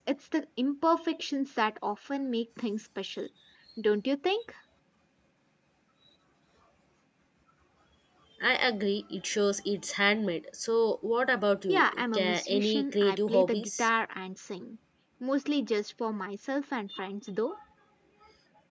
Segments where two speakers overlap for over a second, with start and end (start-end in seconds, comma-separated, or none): 11.7-13.9